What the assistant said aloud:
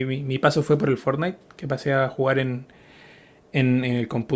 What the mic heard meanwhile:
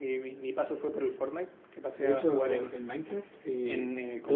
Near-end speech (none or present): present